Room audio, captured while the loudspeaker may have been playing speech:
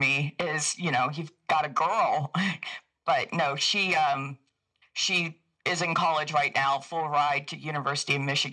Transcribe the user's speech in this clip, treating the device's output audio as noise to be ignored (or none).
none